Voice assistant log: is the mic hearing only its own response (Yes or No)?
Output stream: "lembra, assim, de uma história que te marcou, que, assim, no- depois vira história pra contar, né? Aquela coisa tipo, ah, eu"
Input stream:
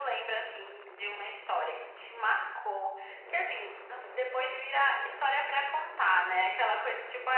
Yes